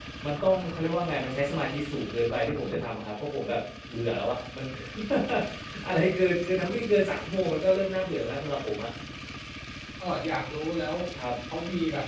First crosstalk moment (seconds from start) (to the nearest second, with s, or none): none